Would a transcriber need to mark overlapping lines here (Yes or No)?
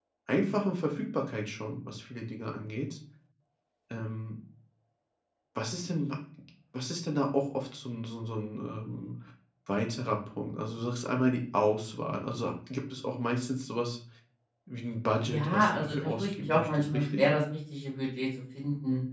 Yes